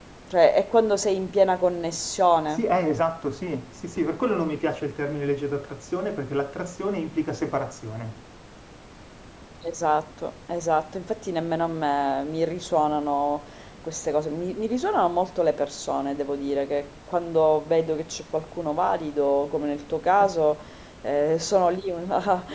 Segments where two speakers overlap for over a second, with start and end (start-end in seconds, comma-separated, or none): none